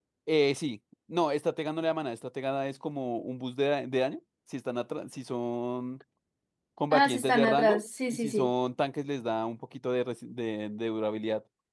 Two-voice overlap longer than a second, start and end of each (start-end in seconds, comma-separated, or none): 6.9-8.5